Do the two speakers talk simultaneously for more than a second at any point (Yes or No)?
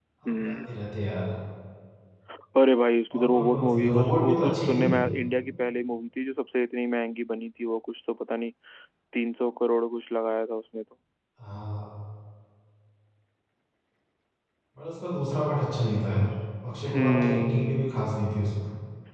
Yes